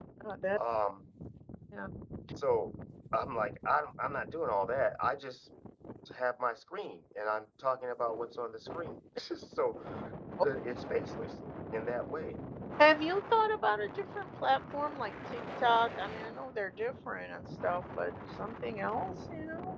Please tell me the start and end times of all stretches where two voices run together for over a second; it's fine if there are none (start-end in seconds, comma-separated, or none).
none